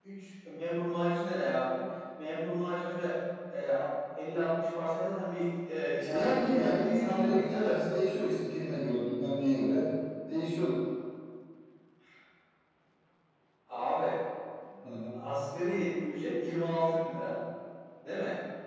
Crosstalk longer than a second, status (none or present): present